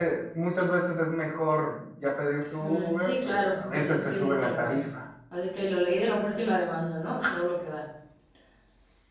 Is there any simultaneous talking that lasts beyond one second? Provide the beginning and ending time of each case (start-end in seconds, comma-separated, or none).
2.6-4.8